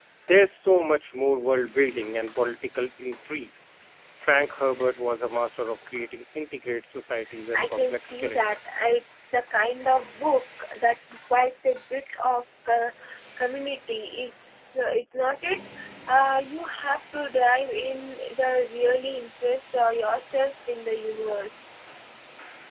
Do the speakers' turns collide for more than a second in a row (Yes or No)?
Yes